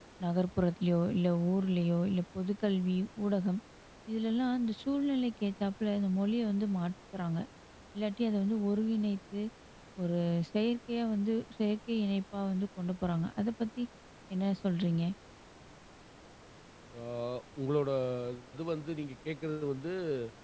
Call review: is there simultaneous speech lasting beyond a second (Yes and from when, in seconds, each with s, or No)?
No